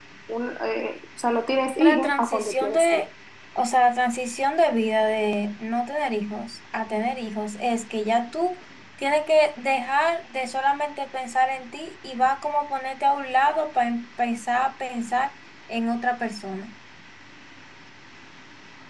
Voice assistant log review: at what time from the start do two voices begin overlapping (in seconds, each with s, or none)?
1.8 s